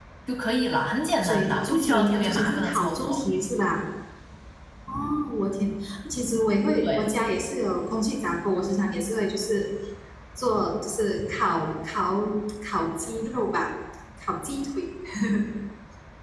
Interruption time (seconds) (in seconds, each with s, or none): 1.2 s